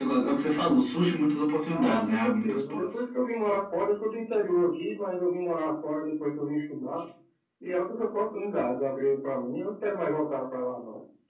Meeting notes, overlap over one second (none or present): present